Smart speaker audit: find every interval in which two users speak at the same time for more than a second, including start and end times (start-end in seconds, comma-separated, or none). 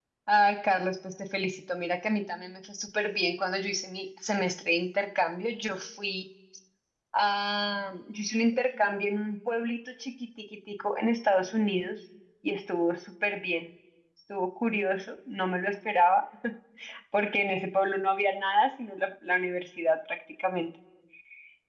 none